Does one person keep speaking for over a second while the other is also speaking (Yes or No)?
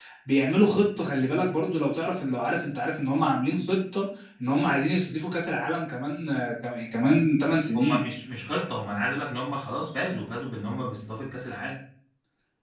No